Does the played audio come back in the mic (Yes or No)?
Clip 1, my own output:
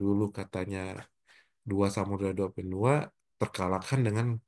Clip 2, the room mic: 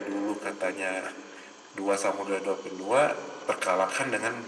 Yes